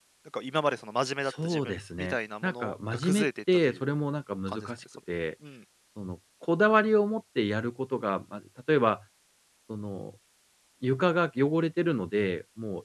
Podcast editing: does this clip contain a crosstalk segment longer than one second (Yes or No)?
Yes